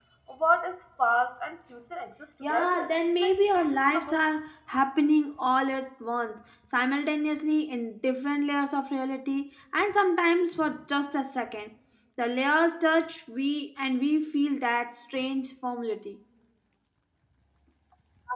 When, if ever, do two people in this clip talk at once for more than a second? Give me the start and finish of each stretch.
2.4-4.2

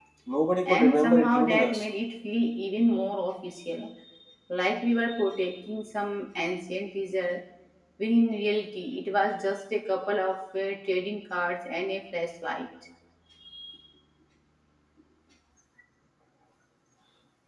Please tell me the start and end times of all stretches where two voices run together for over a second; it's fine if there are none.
0.7-1.9

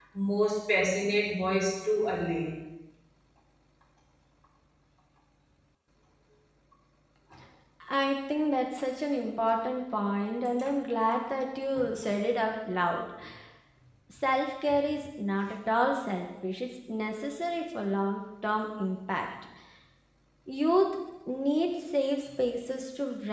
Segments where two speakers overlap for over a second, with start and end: none

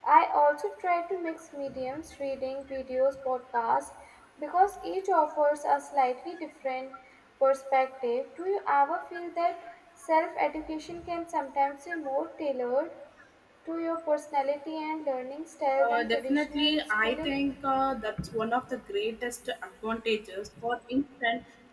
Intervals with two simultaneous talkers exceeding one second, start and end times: 15.9-17.4

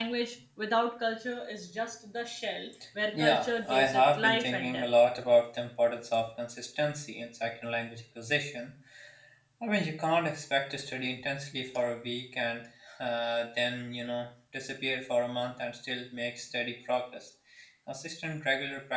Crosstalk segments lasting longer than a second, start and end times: 3.2-4.8

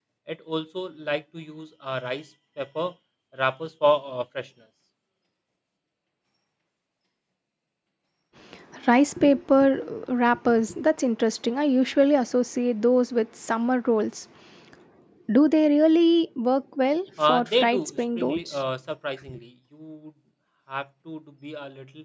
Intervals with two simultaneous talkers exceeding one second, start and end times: 17.3-18.6

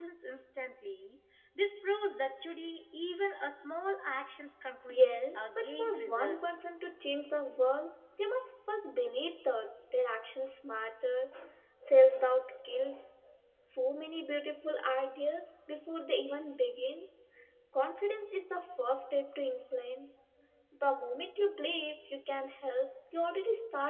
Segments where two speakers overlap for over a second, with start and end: 4.9-6.7

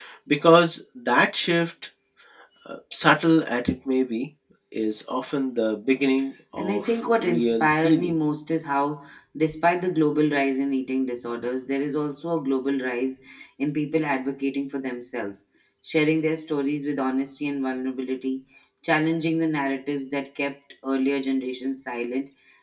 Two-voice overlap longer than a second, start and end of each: 6.5-8.2

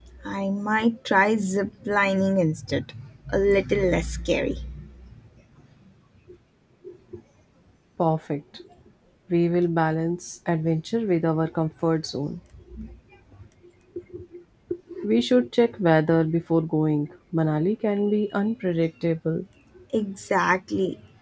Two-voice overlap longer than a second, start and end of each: none

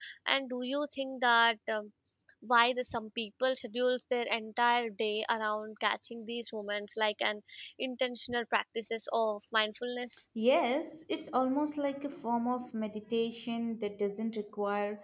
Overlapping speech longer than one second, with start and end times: none

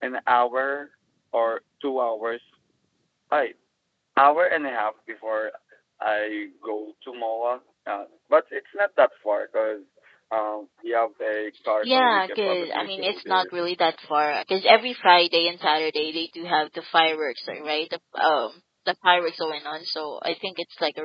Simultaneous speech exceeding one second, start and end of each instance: 11.8-13.4

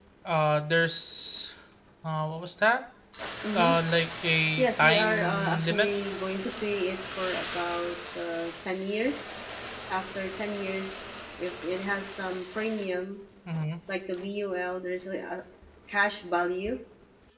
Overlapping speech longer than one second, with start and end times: 4.6-5.9

